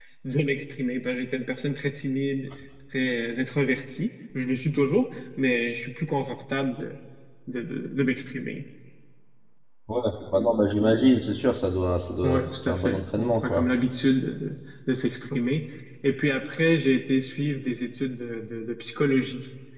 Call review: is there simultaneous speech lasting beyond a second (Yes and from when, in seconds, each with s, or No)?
Yes, from 12.2 s